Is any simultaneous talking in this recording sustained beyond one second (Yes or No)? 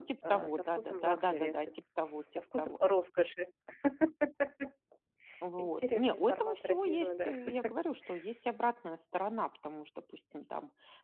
Yes